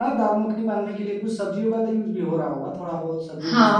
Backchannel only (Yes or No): No